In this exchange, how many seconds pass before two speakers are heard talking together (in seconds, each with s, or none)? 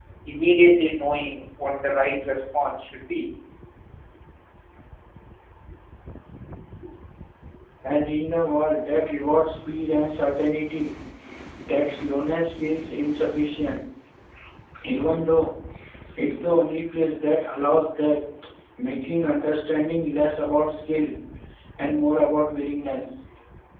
none